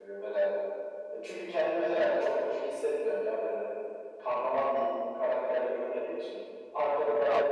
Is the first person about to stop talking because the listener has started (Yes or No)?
Yes